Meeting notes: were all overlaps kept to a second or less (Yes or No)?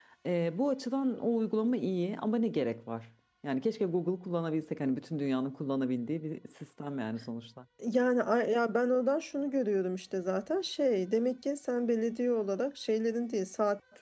Yes